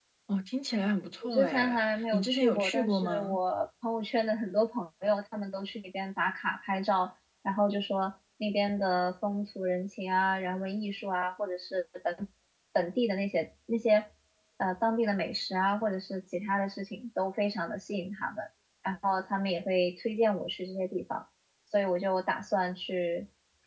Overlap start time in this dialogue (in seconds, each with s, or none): 1.2 s